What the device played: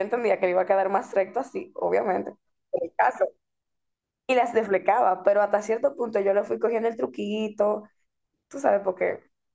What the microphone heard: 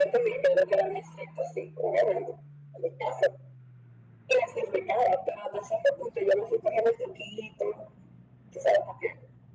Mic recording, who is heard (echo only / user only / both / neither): echo only